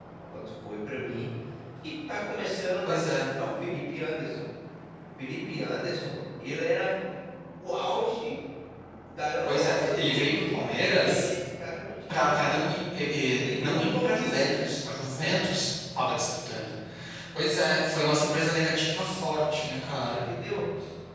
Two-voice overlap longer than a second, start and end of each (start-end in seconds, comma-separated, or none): 9.5-11.3, 13.4-14.8